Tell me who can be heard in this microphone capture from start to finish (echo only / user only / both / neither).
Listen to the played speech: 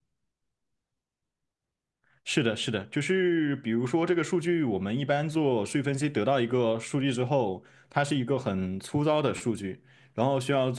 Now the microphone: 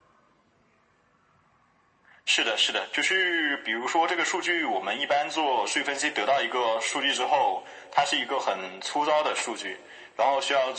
echo only